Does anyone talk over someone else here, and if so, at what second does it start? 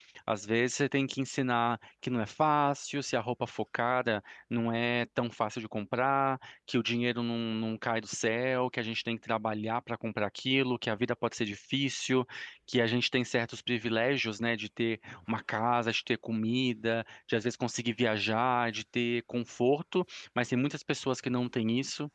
none

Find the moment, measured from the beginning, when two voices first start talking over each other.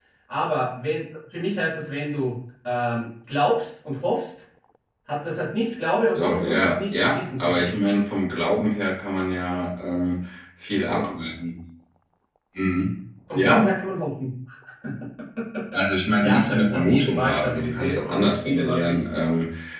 6.1 s

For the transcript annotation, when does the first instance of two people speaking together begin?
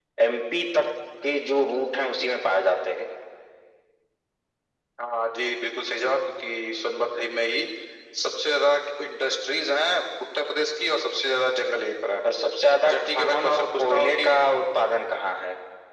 12.8 s

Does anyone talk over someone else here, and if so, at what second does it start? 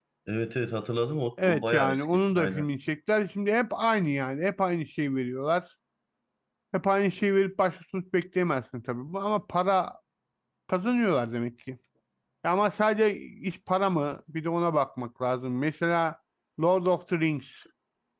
1.4 s

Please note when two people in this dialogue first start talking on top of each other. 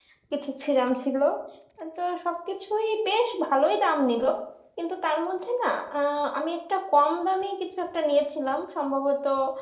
none

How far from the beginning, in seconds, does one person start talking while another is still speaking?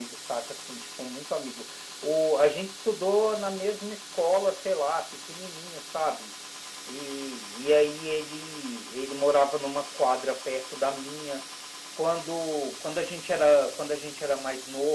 none

